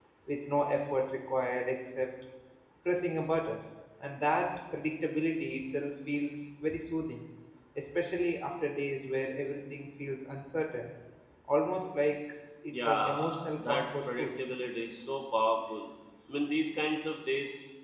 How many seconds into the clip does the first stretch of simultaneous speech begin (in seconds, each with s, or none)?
12.7 s